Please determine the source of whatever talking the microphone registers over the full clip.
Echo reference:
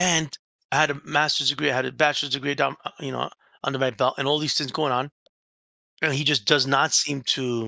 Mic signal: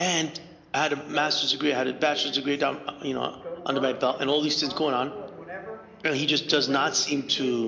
both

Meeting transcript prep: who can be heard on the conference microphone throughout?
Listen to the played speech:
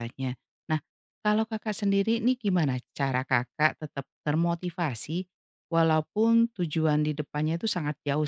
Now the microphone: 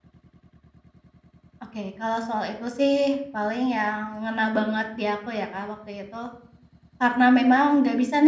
user only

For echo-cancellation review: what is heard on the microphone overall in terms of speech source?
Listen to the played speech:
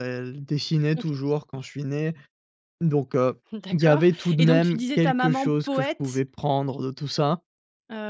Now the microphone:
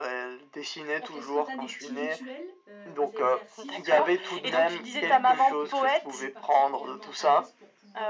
both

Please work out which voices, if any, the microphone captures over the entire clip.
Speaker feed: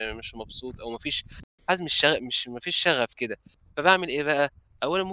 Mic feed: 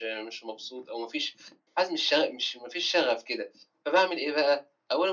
echo only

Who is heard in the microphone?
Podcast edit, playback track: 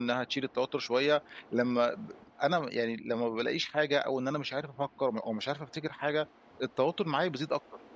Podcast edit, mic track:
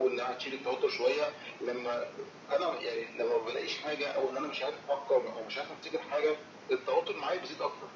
echo only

